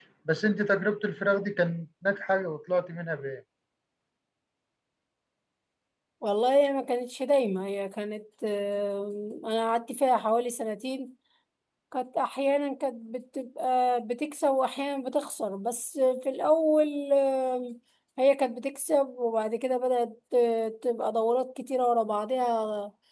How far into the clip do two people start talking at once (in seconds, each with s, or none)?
none